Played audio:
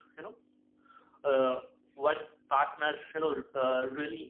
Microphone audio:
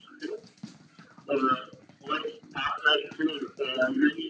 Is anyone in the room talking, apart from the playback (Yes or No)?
No